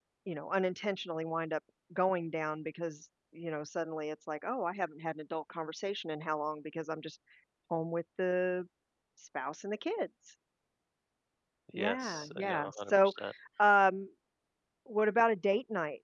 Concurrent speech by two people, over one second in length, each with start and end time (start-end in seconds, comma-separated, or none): 11.8-13.1